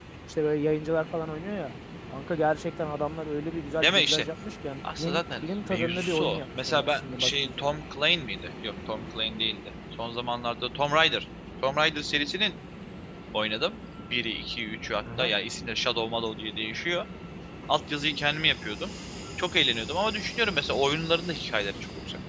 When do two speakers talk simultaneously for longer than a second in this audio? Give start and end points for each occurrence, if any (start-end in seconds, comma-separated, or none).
5.0-7.7